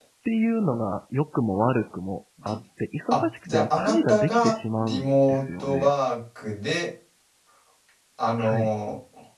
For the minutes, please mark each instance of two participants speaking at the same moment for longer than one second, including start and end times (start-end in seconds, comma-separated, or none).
3.1-5.9